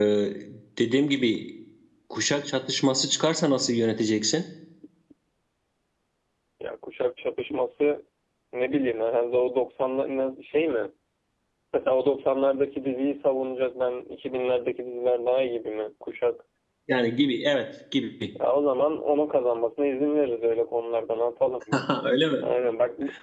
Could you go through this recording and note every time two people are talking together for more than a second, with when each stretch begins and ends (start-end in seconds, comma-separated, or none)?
none